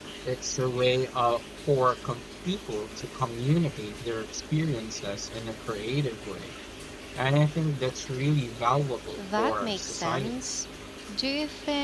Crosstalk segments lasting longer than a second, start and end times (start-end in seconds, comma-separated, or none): 9.2-10.4